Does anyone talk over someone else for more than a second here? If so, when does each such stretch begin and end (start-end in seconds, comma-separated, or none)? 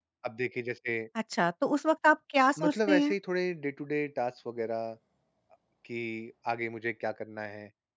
none